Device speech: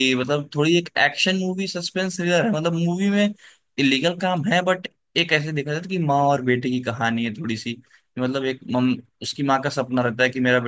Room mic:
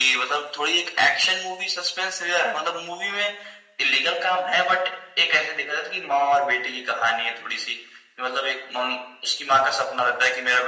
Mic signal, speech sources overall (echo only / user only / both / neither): echo only